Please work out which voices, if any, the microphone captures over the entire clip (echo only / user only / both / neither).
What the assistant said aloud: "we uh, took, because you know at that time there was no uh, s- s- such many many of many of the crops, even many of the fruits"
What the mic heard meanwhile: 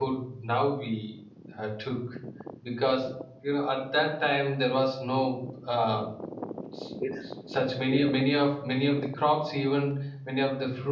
both